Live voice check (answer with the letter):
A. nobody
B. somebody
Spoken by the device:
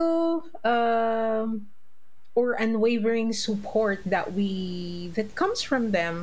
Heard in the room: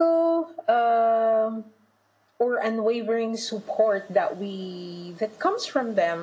A